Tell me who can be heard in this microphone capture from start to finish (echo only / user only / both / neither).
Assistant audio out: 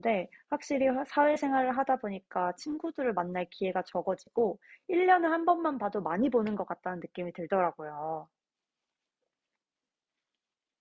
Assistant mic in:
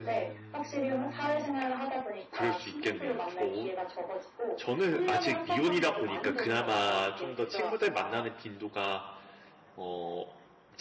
both